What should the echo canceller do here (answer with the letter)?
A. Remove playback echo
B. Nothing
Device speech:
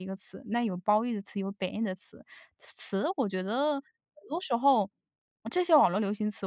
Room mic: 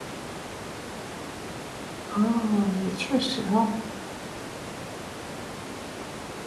B